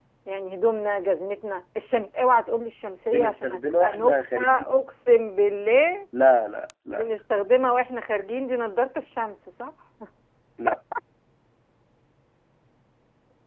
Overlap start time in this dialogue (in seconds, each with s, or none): 3.0 s